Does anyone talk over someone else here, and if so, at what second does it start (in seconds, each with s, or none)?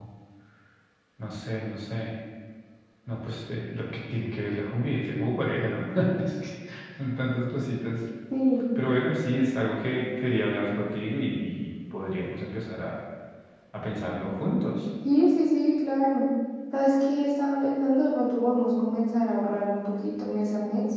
none